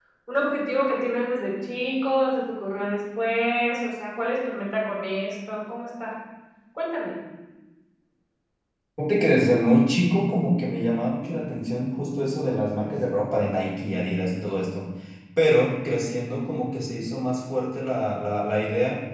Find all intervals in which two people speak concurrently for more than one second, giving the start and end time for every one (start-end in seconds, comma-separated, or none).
none